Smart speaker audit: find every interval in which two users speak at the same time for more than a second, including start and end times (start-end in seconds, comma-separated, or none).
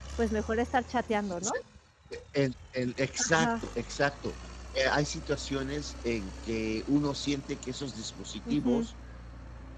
none